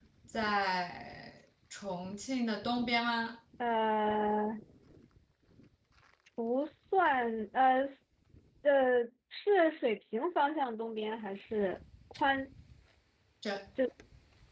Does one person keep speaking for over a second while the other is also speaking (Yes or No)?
No